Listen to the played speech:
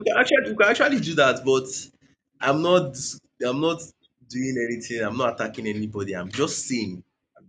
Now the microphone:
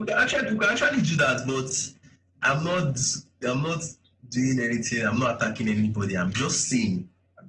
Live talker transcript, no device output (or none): none